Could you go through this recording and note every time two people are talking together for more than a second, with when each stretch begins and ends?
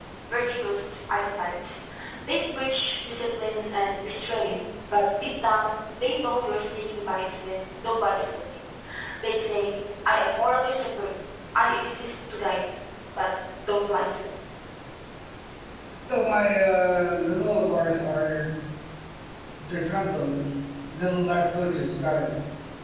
none

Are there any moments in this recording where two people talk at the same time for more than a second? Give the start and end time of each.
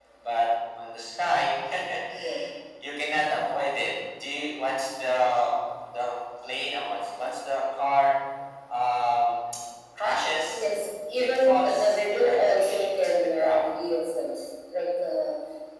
11.2-13.6

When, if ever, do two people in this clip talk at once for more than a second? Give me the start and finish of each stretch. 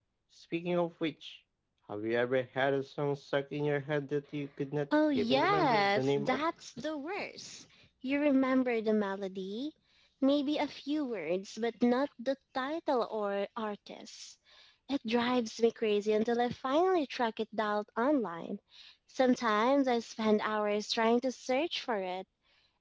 5.2-6.4

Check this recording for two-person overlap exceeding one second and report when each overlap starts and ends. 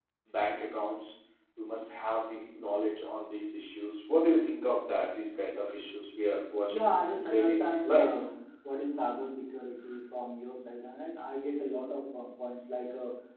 6.7-8.1

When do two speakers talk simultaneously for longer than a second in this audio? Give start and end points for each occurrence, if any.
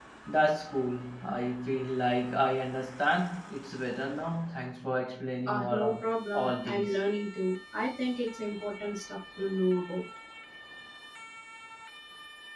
5.5-7.0

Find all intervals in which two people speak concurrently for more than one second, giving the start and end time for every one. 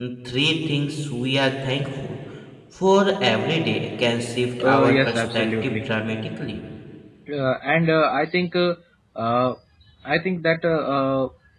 4.6-5.9

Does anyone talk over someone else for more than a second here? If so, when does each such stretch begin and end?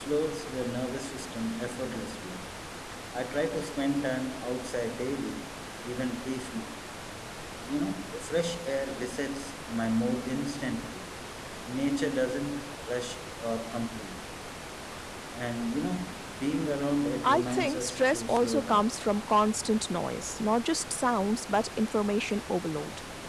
17.2-18.9

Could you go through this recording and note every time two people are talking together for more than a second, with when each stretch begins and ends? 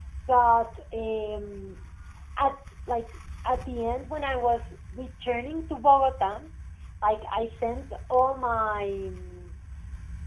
none

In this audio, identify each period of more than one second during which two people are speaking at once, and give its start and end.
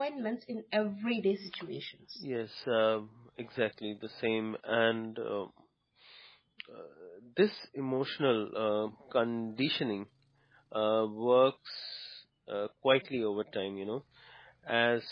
none

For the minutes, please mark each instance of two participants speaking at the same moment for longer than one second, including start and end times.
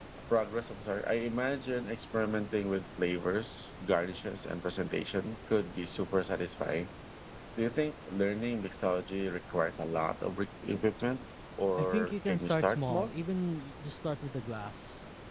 11.8-13.1

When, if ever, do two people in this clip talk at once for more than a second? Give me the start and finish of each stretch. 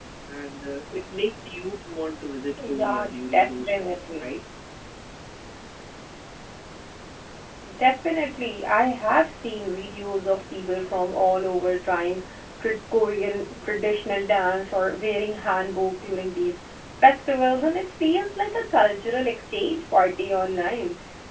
2.7-4.2

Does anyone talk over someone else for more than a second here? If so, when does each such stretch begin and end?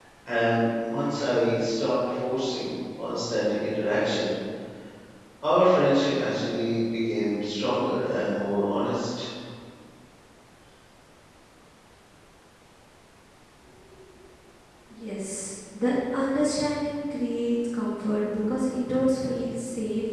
none

